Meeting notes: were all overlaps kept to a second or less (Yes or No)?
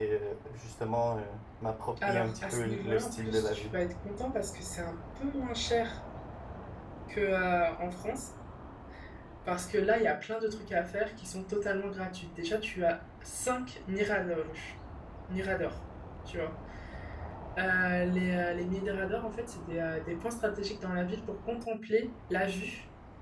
No